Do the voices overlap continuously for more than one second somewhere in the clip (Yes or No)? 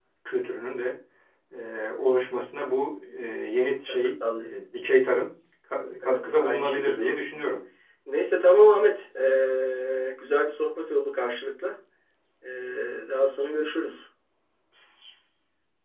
Yes